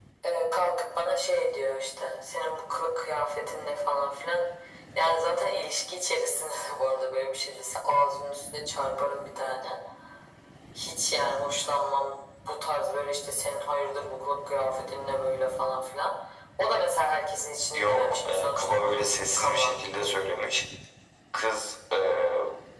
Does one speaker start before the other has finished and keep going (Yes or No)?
Yes